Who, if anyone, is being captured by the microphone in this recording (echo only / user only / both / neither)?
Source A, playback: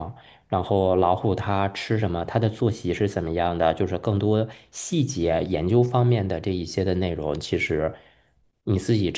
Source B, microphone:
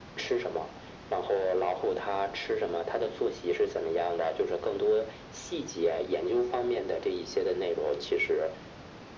echo only